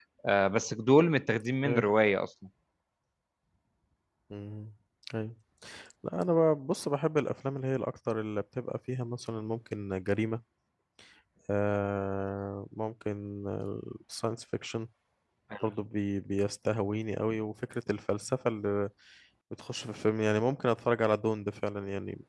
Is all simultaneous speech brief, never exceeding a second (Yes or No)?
Yes